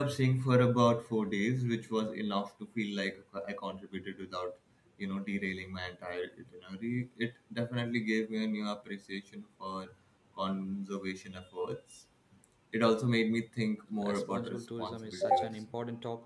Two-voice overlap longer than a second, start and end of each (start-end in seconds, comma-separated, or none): 14.0-15.6